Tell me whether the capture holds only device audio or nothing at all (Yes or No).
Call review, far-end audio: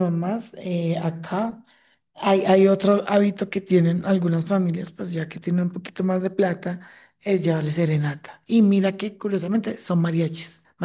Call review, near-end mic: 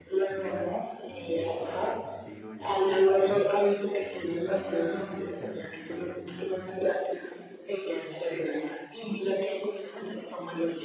No